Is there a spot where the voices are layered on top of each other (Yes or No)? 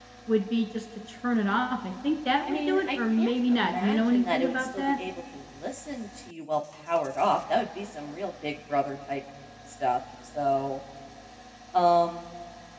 Yes